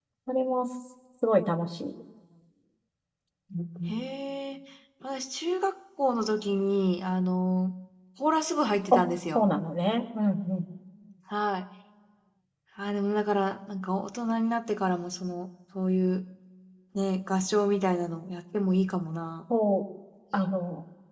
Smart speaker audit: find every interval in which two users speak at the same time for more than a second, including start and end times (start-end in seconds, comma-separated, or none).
none